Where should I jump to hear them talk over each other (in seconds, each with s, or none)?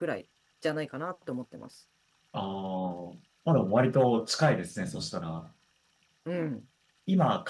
none